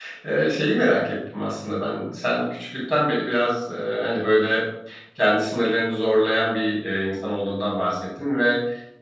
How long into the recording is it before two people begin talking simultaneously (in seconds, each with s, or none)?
none